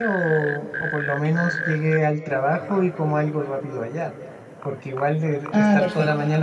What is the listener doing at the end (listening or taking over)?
listening